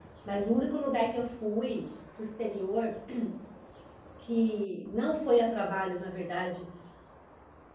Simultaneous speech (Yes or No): No